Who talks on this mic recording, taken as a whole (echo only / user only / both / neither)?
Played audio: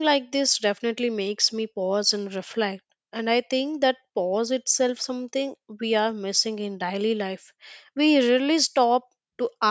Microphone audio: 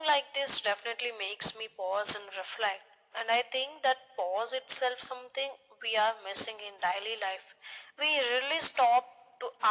echo only